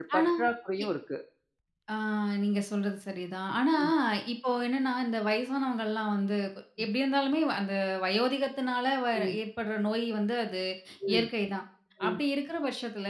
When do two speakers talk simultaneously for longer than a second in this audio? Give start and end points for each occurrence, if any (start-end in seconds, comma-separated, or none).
none